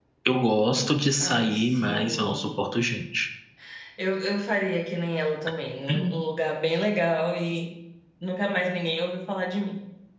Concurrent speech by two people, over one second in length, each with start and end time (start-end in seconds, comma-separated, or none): 1.3-2.6